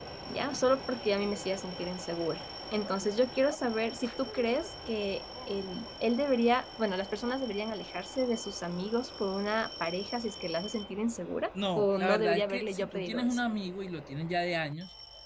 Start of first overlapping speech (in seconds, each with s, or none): 11.5 s